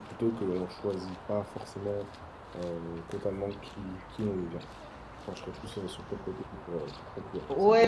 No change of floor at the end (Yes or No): No